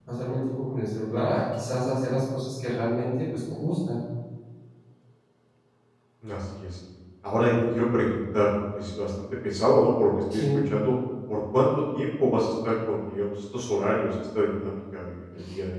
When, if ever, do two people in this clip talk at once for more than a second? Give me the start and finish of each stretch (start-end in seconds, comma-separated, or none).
none